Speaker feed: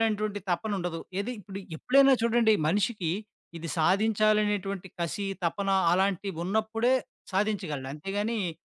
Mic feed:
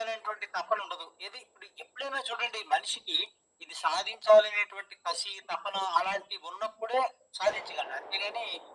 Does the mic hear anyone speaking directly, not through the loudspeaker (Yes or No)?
No